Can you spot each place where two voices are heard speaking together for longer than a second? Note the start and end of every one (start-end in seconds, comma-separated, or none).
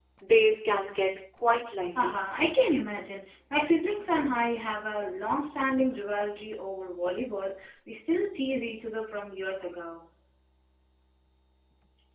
none